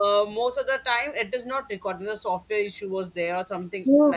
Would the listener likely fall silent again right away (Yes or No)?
No